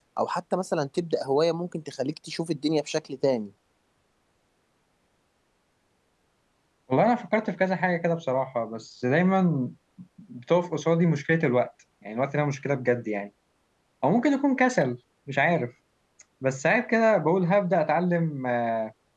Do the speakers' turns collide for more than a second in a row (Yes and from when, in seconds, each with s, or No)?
No